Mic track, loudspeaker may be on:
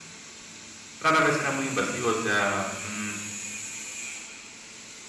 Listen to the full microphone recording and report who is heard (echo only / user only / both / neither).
user only